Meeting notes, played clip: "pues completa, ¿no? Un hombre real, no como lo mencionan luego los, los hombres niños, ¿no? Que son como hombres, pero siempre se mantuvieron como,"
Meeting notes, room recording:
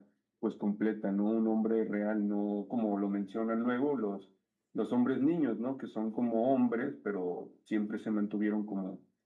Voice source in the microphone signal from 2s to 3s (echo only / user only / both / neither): echo only